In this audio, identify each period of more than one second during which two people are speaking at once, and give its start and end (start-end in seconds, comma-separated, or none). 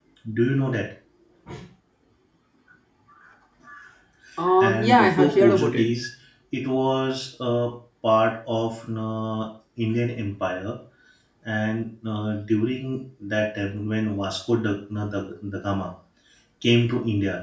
4.6-5.8